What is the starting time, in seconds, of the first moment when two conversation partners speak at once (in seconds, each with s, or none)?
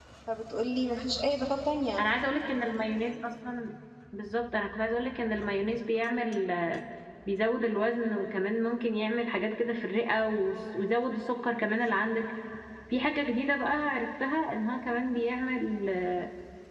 none